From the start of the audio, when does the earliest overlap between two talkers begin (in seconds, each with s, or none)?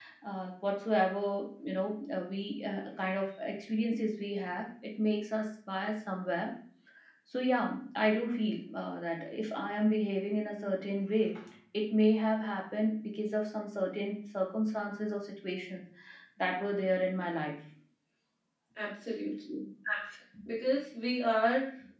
none